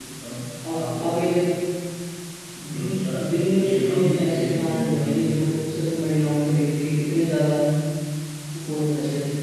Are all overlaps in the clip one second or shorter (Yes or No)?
No